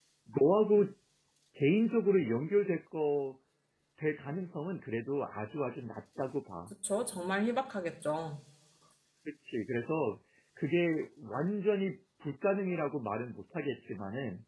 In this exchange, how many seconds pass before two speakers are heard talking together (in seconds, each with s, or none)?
none